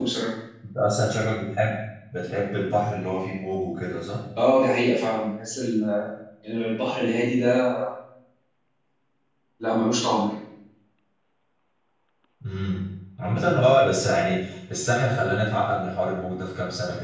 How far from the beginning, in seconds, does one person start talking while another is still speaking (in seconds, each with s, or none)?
none